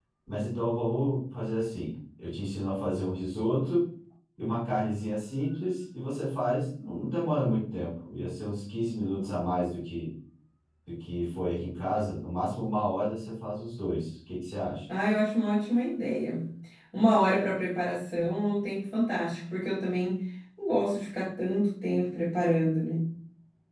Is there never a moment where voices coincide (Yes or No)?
Yes